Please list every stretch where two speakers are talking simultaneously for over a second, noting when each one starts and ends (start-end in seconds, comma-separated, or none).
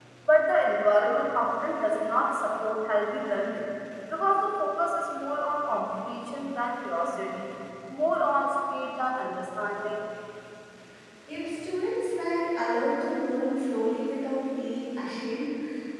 none